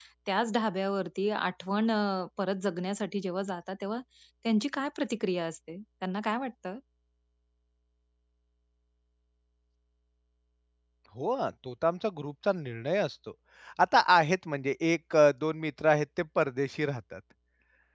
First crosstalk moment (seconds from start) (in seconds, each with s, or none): none